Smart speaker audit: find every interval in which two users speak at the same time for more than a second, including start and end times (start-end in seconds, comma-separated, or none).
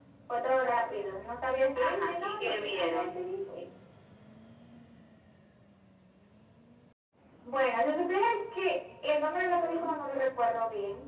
1.8-3.1